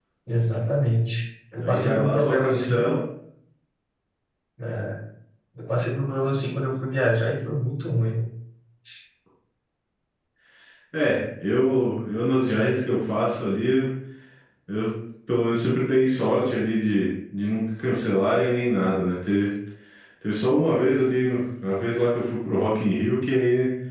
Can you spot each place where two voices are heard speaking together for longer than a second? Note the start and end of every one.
1.6-2.9

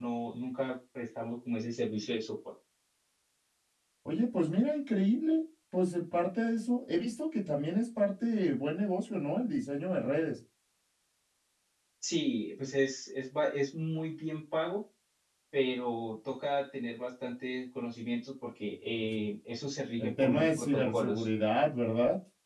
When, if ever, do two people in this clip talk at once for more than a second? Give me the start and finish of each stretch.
20.0-21.3

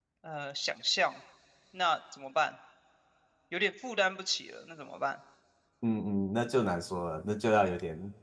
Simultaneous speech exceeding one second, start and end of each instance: none

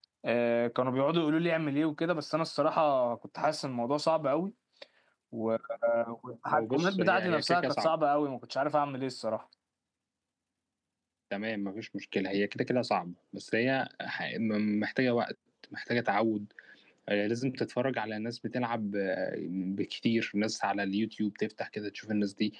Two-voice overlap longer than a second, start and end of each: 6.5-7.9

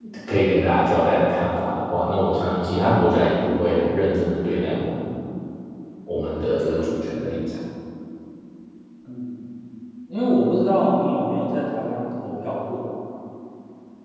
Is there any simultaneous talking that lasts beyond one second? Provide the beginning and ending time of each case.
none

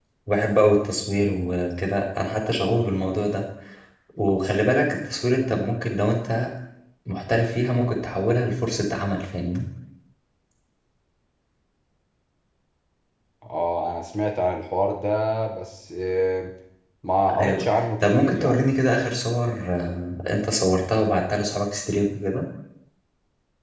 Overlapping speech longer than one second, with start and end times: 17.4-18.8

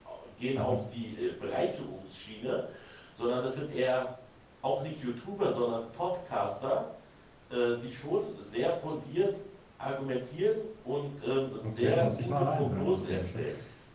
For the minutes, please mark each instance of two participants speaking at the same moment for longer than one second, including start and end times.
11.6-13.4

